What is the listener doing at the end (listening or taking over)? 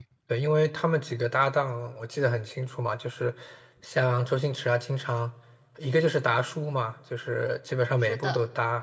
listening